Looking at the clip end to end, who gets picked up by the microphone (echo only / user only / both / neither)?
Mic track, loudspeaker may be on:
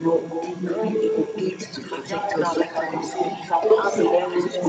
echo only